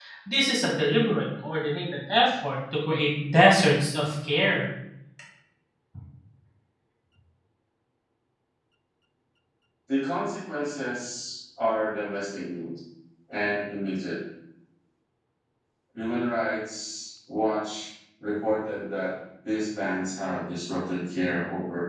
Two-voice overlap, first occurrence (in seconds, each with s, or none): none